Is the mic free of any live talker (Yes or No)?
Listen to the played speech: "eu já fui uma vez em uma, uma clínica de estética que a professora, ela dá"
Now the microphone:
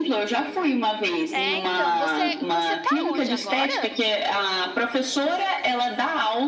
No